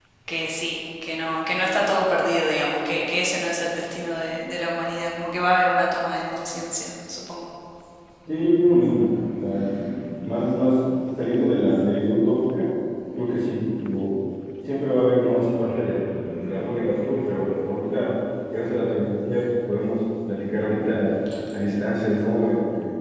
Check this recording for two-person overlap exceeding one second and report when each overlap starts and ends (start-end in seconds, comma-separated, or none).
none